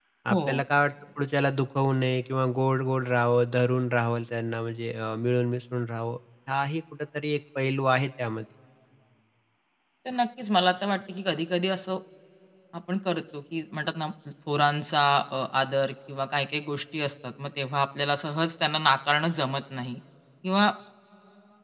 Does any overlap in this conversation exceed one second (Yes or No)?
No